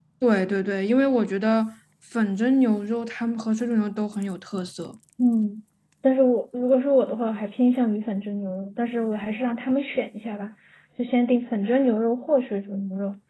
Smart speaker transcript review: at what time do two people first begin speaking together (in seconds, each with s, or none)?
none